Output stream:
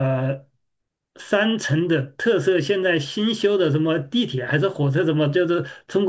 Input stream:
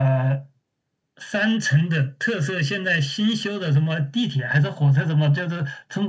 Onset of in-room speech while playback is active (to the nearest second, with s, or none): none